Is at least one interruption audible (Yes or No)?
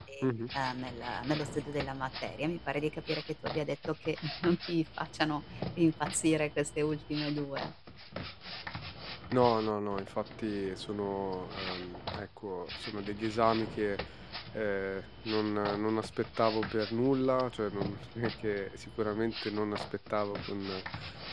No